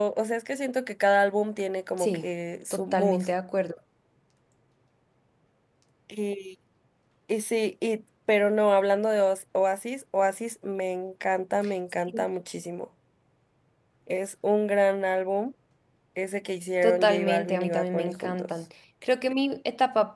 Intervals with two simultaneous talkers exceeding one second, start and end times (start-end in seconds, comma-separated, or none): 16.8-18.5